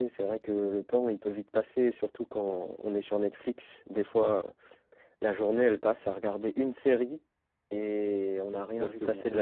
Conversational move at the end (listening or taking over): taking over